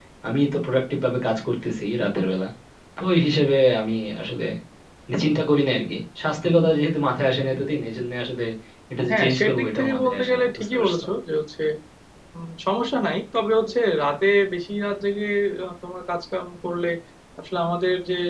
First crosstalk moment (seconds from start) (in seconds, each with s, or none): 9.1 s